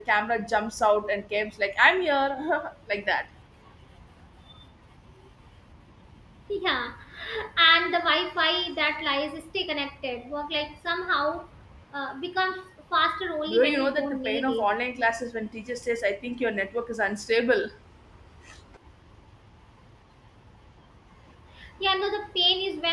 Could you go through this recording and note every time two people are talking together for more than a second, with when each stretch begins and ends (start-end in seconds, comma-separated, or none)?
13.5-14.7